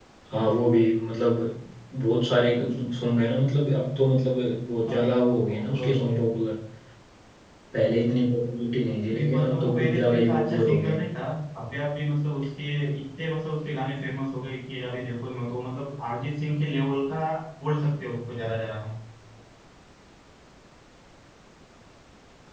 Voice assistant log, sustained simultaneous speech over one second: present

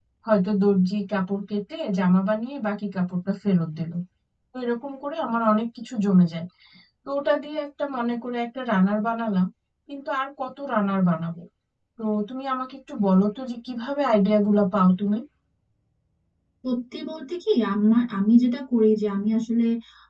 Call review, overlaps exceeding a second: none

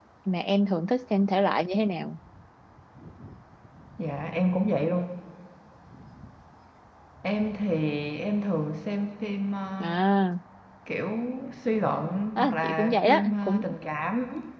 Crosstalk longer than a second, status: present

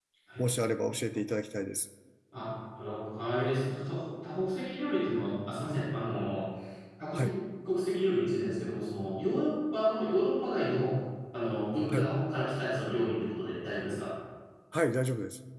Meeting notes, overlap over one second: none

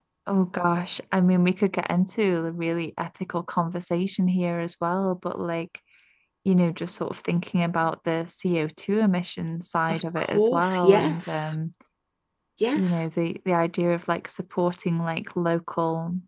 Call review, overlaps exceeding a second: present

